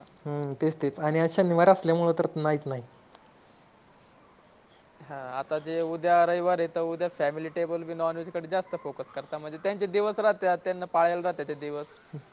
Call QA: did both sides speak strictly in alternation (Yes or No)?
Yes